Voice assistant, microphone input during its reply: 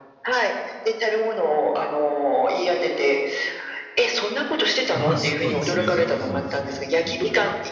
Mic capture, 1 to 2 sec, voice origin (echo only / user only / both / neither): echo only